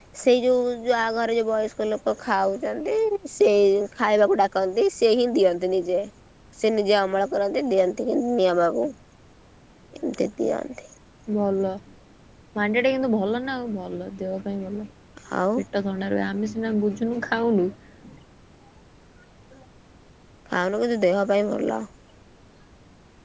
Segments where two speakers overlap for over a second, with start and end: none

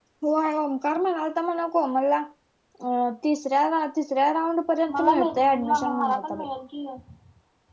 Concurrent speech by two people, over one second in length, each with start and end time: 5.0-6.4

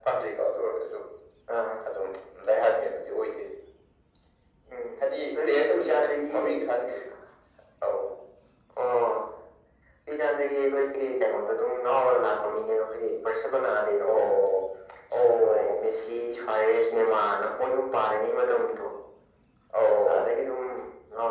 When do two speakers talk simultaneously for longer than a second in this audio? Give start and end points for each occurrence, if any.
5.0-6.4

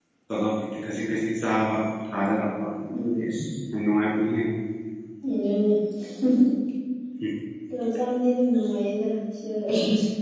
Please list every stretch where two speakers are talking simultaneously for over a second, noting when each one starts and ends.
none

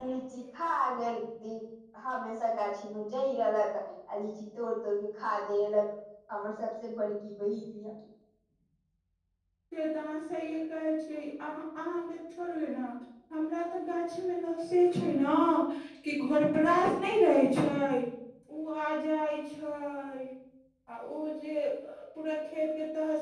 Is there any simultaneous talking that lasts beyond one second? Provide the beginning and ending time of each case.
none

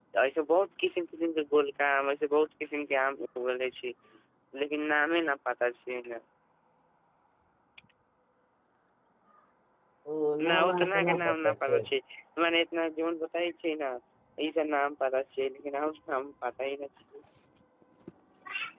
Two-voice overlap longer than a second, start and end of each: 10.5-11.8

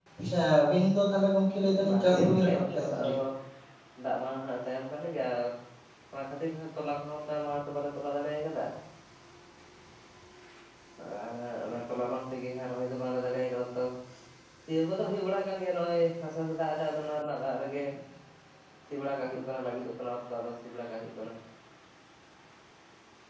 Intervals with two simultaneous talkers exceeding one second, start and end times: 1.9-3.1

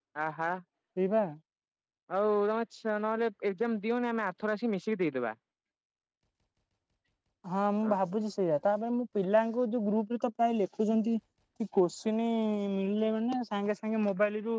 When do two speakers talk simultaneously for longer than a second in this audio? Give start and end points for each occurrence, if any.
none

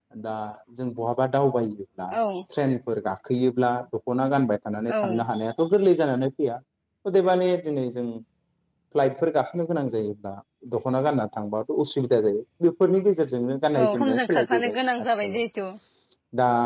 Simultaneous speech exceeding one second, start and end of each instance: 13.8-15.4

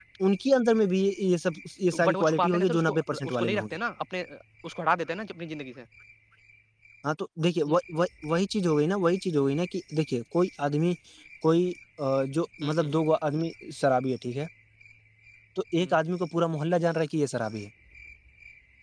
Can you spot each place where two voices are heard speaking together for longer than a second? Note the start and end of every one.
2.0-3.7

